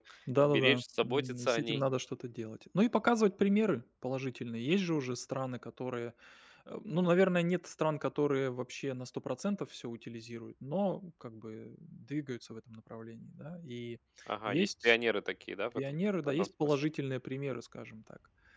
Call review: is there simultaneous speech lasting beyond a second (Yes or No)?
Yes